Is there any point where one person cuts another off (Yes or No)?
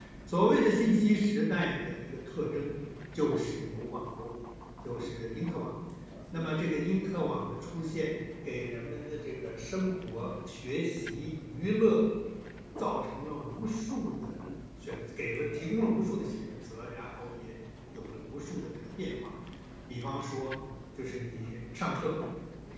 No